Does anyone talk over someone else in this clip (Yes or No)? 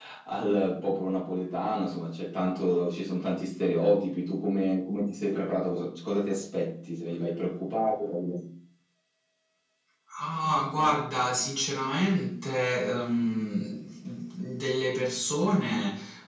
No